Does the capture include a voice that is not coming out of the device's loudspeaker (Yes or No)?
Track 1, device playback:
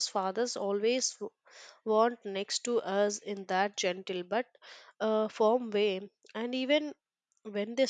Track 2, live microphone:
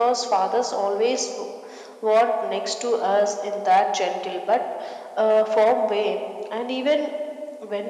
No